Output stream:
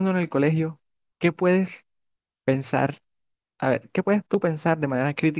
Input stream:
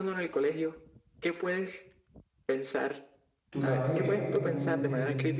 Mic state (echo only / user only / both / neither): both